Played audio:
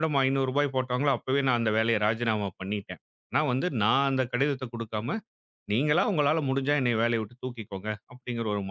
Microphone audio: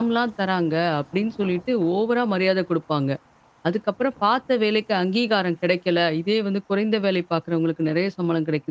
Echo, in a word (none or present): none